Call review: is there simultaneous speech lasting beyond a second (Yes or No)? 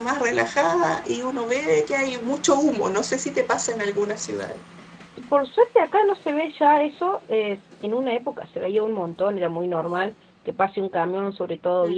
No